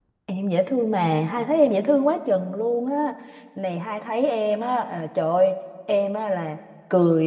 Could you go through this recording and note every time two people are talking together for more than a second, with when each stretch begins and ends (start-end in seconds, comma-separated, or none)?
none